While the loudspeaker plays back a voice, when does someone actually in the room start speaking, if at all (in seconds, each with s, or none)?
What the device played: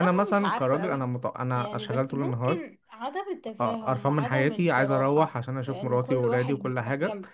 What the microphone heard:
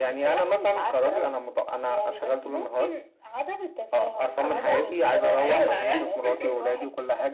4.4 s